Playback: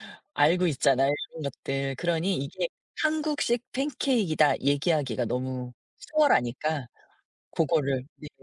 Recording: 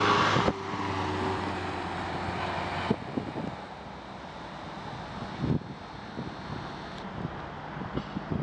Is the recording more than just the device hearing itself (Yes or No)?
No